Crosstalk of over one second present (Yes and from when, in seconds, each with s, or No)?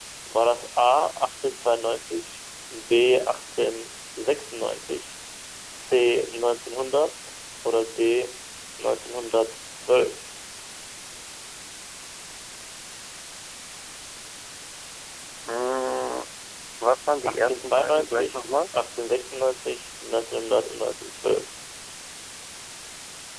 Yes, from 17.2 s